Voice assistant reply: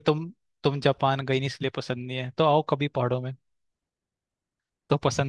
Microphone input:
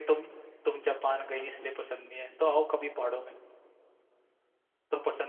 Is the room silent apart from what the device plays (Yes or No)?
Yes